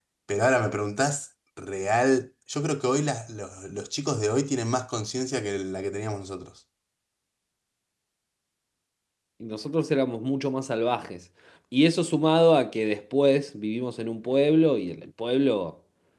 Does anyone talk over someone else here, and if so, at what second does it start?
none

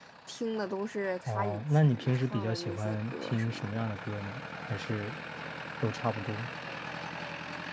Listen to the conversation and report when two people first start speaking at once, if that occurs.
1.3 s

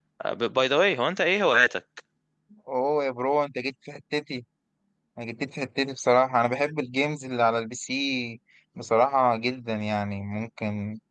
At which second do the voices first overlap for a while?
none

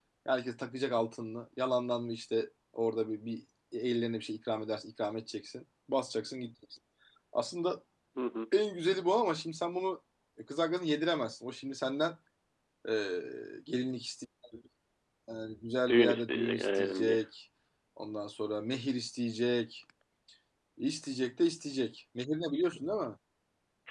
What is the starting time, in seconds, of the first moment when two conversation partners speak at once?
15.9 s

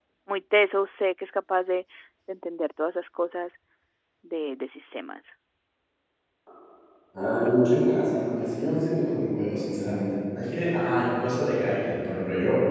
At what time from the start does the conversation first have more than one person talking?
none

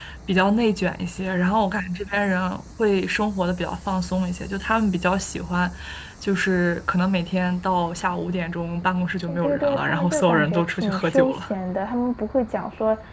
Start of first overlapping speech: 9.3 s

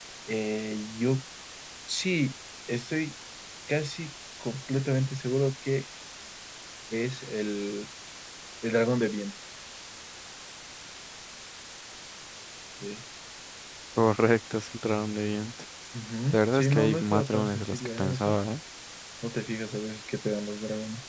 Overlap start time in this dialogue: 16.3 s

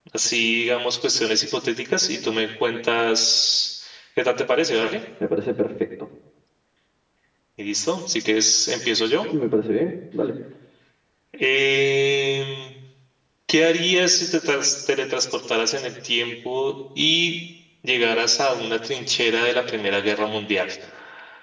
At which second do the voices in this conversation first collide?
none

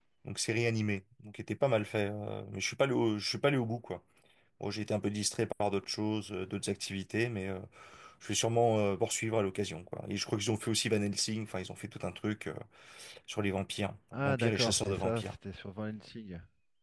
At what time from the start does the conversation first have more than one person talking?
14.1 s

